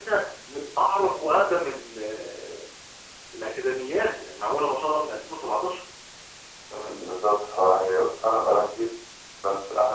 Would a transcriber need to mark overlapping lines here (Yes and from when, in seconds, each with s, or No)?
No